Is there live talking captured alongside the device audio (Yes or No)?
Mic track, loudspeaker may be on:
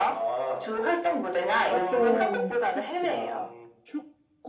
Yes